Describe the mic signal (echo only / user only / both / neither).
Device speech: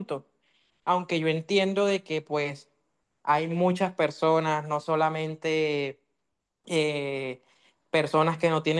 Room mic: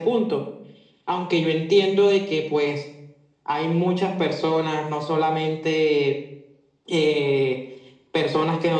echo only